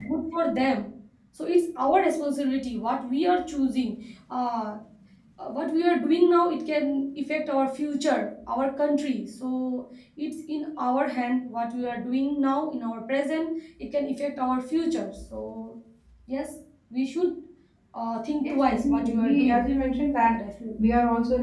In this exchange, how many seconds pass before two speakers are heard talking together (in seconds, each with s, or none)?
18.4 s